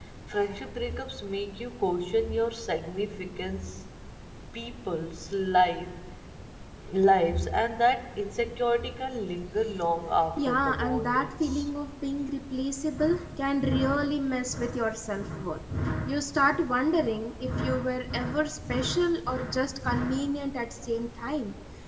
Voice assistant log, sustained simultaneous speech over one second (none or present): present